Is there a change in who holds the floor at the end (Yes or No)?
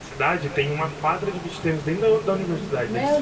No